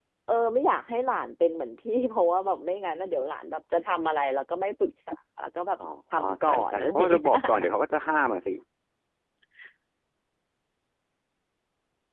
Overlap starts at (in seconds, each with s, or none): 5.8 s